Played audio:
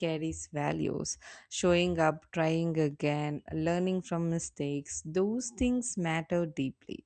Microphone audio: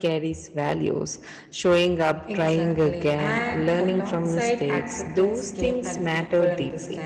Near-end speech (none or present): present